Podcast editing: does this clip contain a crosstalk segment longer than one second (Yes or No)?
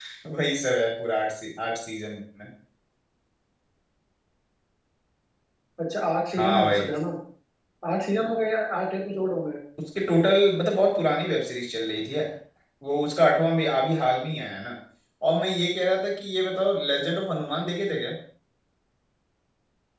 No